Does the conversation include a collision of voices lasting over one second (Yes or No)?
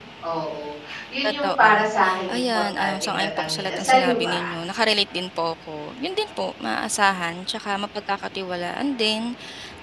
Yes